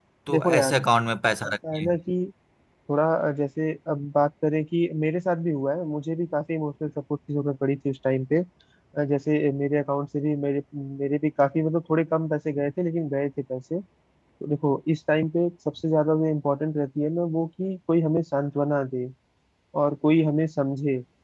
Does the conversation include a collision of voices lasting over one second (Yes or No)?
No